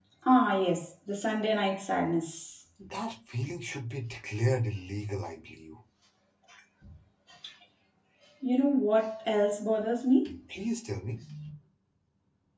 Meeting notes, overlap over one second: none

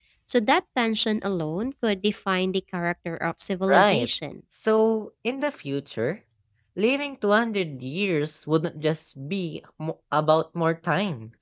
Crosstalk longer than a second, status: none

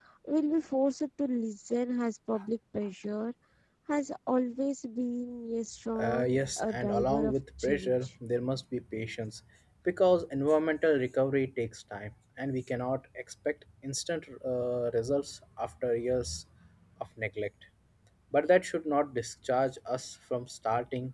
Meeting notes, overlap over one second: present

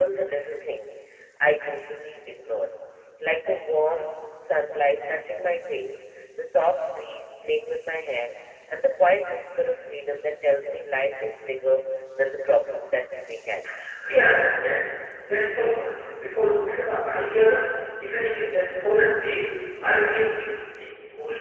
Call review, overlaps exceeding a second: none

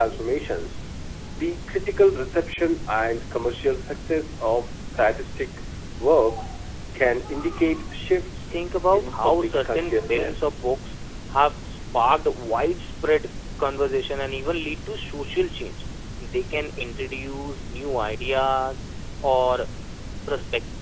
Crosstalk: present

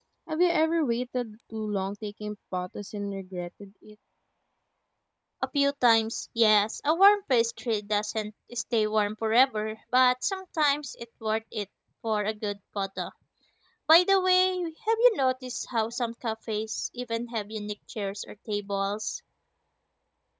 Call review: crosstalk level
none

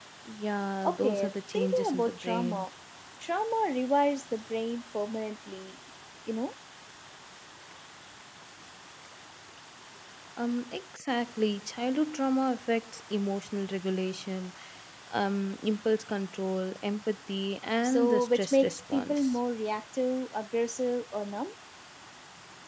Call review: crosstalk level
present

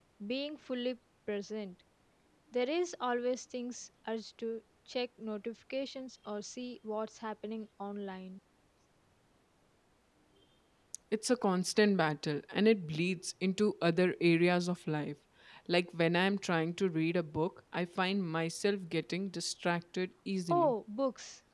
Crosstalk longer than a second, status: none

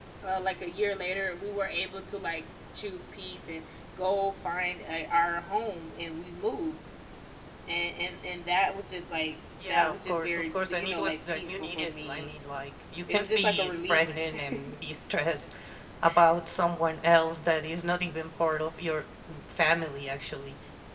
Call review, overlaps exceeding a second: present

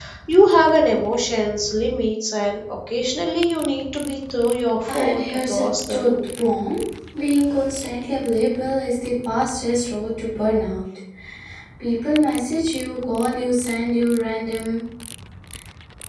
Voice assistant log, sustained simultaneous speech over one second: present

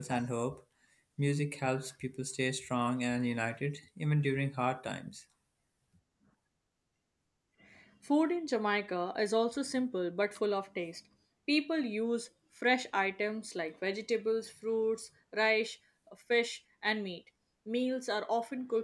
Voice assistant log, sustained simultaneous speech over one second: none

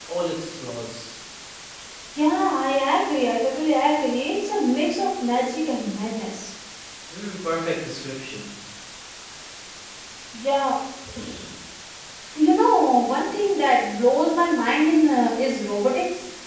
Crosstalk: none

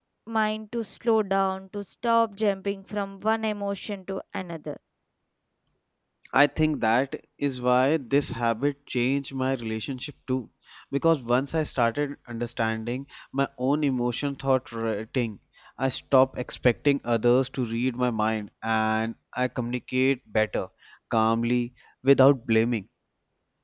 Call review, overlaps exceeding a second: none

